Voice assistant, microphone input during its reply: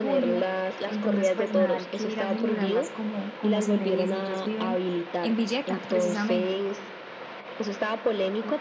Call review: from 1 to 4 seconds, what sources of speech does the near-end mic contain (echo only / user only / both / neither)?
both